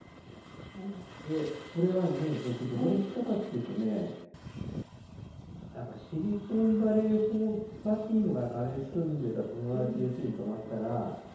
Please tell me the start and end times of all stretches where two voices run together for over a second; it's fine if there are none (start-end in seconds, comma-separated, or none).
none